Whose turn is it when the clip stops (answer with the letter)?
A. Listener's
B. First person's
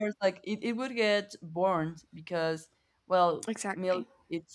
B